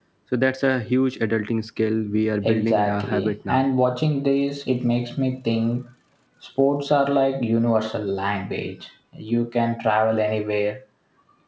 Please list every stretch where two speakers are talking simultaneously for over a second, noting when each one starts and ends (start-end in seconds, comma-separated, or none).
2.4-3.6